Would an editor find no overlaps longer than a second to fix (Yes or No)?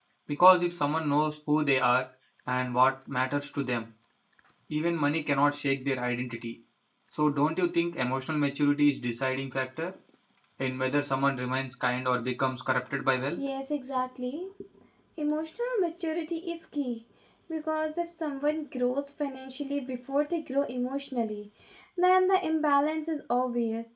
Yes